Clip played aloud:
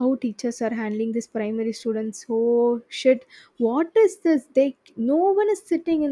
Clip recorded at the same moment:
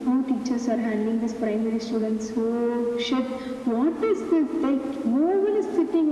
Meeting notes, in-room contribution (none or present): none